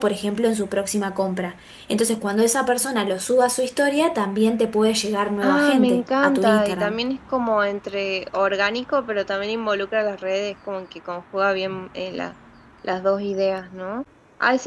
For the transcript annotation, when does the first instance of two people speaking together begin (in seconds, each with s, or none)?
5.4 s